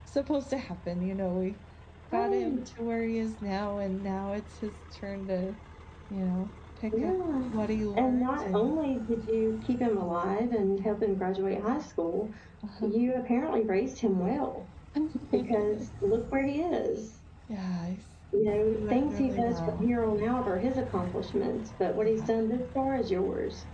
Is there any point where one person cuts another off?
Yes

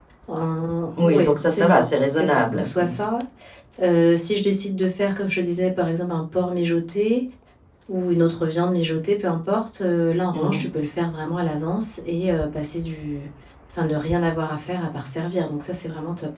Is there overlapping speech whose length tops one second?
Yes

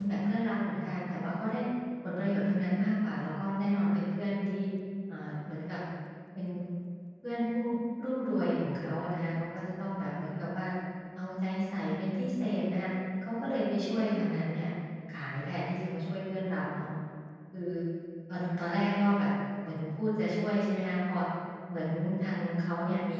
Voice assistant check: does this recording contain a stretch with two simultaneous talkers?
No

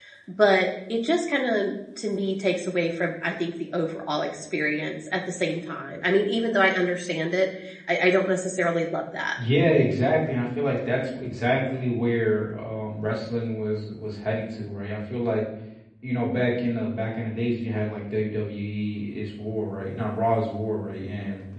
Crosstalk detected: No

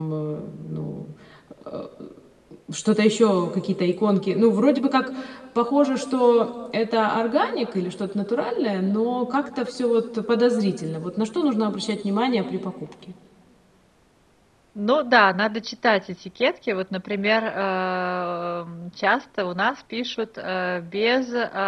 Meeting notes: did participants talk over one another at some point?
No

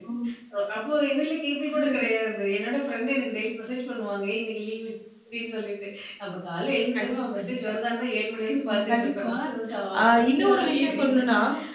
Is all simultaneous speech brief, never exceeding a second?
No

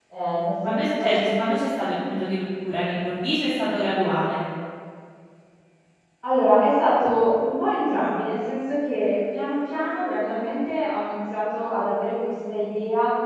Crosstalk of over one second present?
No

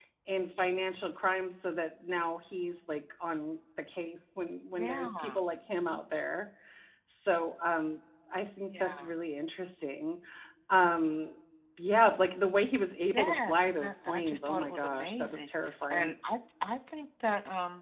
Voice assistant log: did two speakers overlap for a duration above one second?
Yes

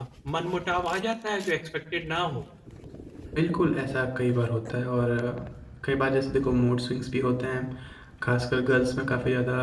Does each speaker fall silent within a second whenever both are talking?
Yes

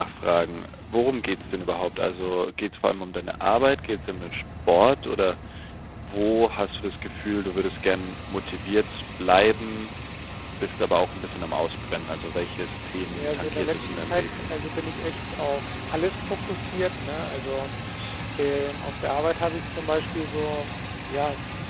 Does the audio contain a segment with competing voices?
Yes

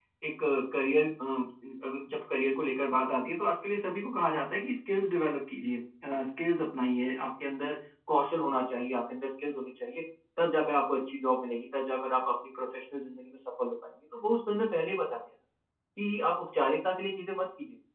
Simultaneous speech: No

